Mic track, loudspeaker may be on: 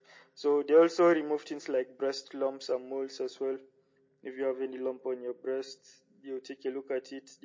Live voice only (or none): none